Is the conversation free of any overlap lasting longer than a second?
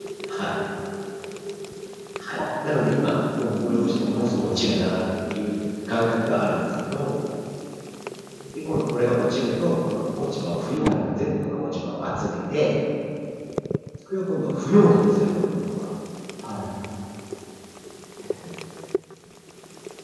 No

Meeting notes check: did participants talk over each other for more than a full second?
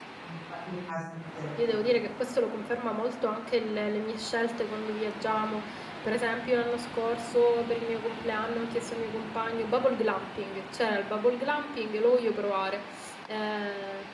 No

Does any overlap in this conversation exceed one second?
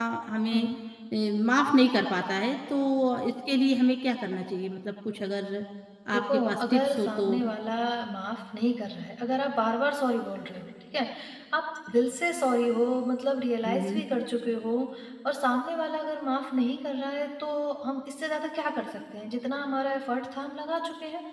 Yes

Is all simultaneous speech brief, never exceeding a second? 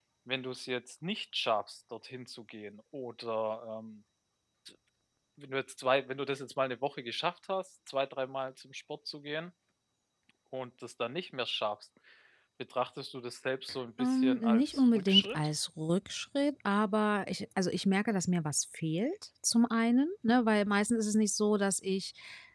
No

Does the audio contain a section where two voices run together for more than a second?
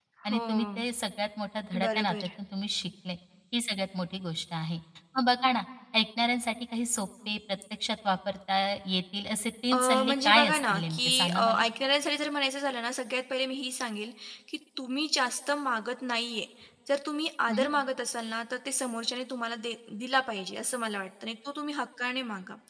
Yes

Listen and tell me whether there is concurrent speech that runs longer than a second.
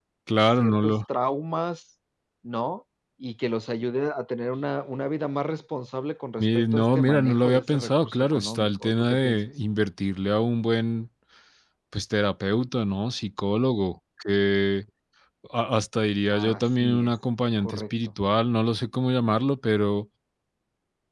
Yes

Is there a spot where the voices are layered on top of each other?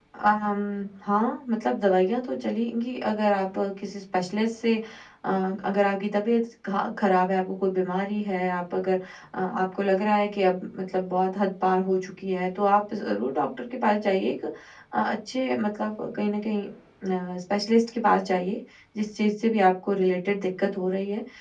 No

